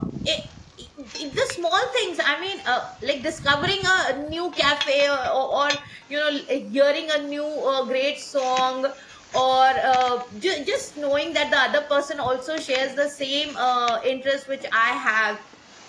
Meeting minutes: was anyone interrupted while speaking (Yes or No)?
No